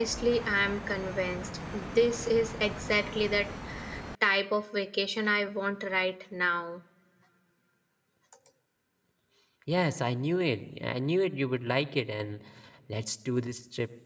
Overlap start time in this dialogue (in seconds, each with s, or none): none